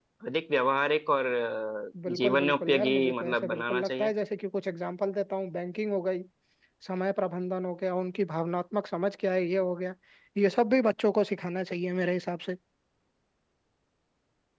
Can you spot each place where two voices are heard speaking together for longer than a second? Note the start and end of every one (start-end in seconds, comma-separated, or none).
2.1-4.1